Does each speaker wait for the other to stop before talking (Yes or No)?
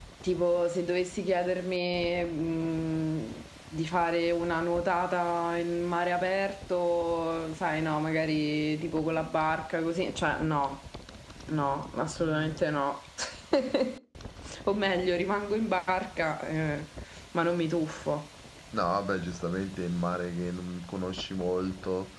Yes